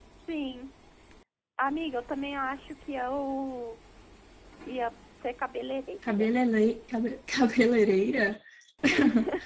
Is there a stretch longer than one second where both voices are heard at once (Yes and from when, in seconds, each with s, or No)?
No